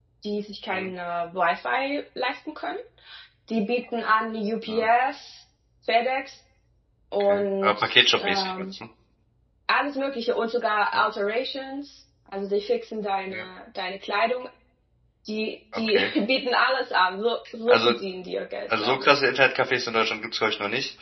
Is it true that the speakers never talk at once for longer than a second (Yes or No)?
No